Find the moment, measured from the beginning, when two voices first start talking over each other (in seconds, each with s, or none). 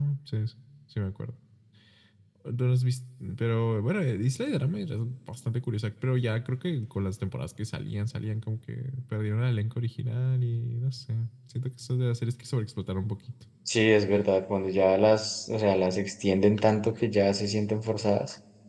none